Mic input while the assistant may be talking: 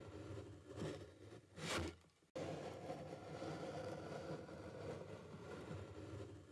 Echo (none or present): none